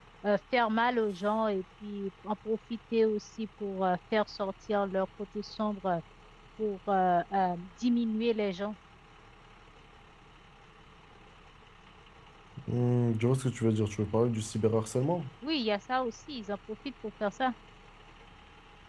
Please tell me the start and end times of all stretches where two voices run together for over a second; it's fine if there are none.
none

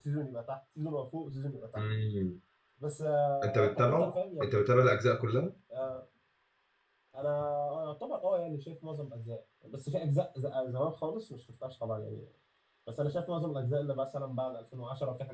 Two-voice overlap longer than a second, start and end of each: 3.4-4.6

